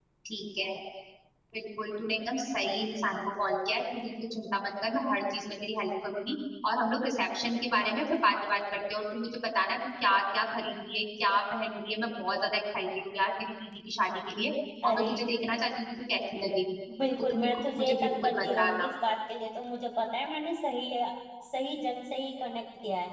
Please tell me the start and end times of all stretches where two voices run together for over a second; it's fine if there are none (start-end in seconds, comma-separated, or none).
17.3-18.9